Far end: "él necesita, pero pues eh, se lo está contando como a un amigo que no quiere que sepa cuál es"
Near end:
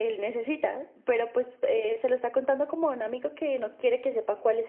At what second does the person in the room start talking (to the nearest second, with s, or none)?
none